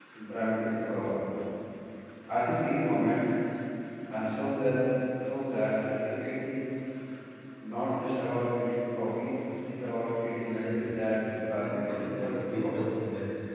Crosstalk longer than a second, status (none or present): present